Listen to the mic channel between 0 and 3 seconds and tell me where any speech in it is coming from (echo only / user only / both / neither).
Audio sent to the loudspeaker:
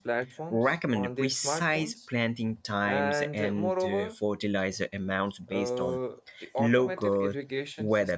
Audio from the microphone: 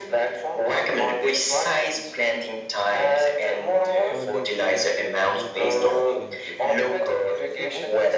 echo only